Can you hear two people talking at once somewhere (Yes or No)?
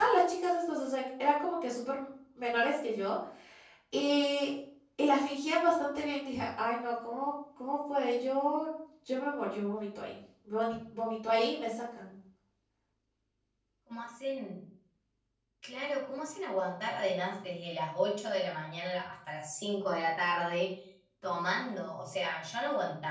No